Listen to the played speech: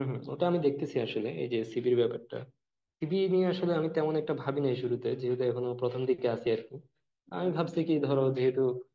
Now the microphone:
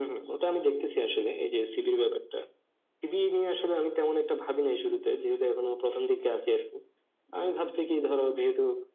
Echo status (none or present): present